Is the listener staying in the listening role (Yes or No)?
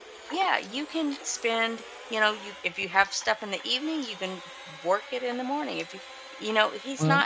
Yes